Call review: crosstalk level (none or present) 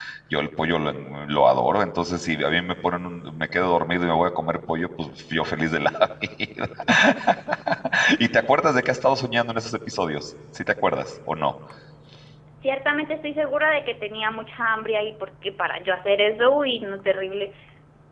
none